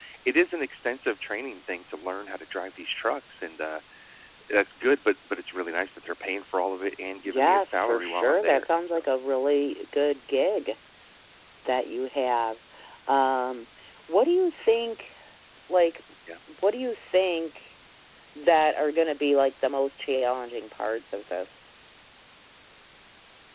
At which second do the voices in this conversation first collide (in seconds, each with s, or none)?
7.2 s